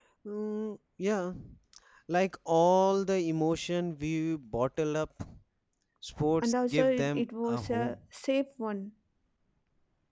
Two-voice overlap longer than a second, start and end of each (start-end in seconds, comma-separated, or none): 6.4-8.0